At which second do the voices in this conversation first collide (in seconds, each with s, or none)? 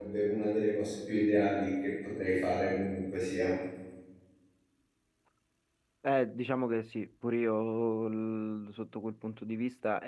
none